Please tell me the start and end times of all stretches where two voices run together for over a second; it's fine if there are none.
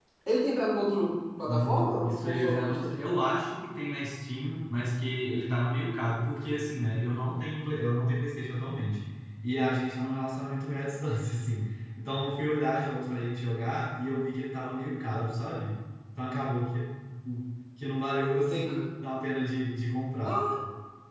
1.5-2.9

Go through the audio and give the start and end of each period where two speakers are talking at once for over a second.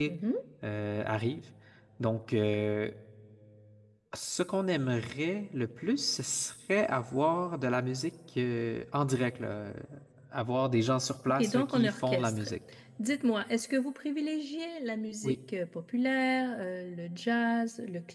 11.3-12.5

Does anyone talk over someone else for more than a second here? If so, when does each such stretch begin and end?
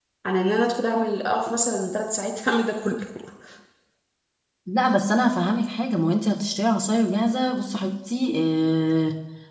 none

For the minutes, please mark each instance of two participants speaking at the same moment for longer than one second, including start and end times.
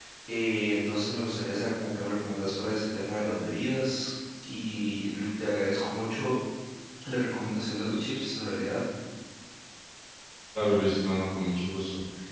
none

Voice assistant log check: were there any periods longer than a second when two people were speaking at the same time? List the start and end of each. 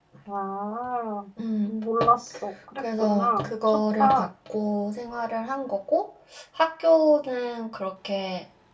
2.8-4.3

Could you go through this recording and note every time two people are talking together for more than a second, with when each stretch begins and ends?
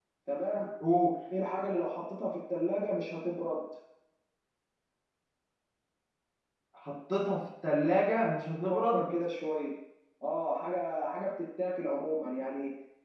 none

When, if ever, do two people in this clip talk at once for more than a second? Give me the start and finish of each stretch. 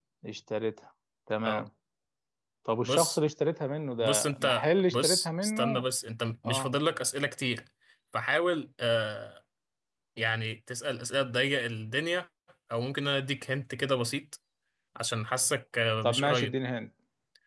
4.0-5.8

